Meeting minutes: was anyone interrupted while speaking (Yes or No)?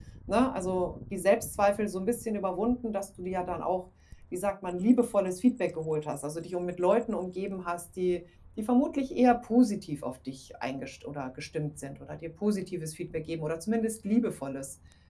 No